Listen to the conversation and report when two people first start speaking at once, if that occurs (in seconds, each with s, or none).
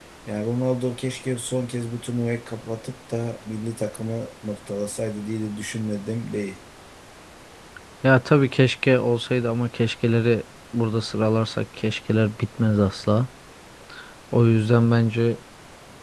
none